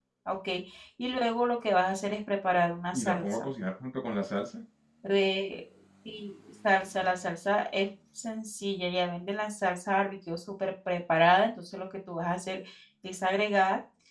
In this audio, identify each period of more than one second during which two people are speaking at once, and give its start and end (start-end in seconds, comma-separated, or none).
none